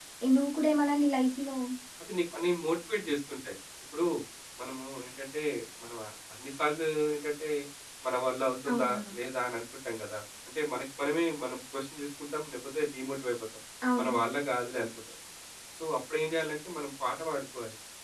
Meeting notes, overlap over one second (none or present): none